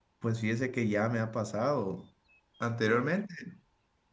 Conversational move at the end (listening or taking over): listening